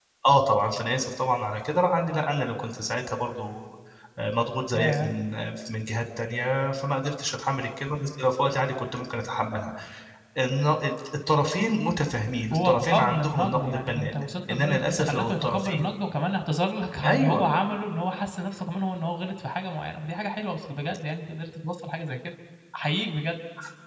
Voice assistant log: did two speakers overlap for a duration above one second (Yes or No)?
Yes